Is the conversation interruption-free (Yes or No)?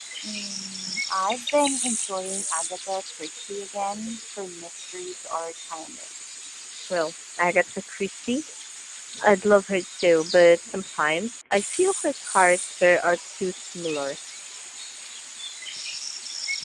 Yes